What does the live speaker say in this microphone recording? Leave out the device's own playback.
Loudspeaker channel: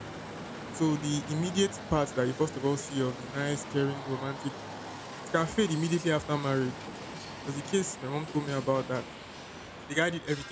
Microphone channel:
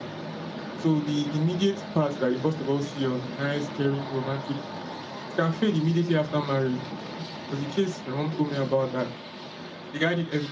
none

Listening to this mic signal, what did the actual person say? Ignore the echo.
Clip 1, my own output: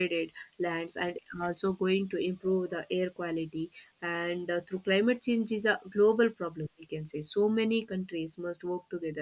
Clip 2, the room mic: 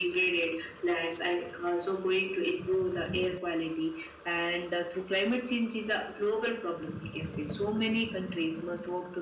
none

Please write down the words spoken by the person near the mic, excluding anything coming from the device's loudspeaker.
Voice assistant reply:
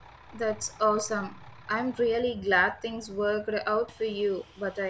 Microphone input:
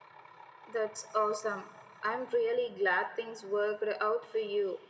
none

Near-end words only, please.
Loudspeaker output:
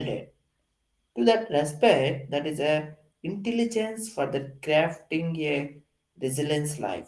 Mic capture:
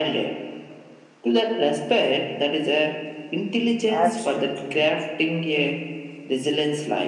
absolutely

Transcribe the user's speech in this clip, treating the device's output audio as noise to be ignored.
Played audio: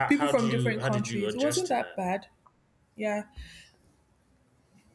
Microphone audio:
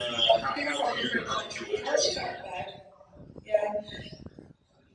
none

